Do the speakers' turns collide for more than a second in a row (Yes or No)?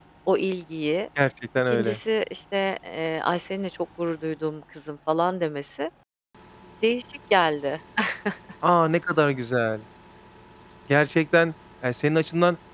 No